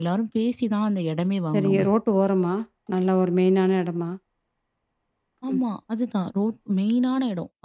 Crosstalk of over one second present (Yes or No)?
No